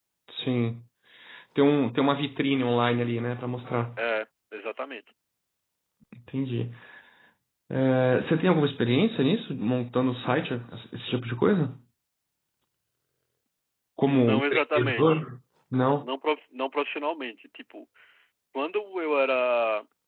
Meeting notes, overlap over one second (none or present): present